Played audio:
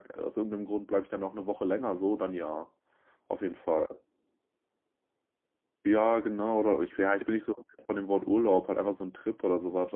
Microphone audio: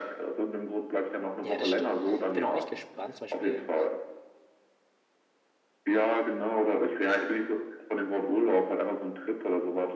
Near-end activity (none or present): present